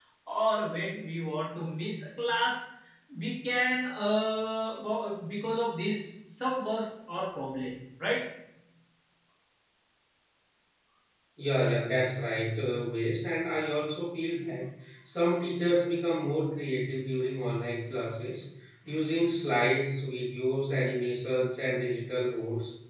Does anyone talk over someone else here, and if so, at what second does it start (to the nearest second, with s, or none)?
none